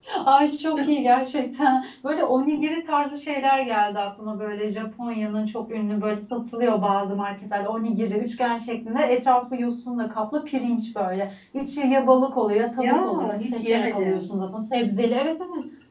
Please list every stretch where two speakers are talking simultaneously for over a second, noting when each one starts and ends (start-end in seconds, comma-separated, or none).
12.8-14.2